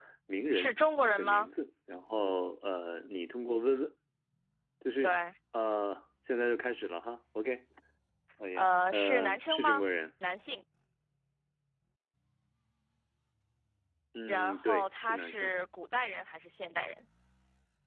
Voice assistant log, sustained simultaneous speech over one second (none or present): present